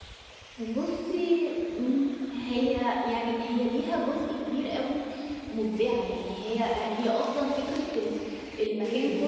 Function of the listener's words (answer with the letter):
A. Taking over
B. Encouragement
B